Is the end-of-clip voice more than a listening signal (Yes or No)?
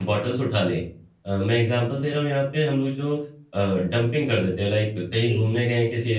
No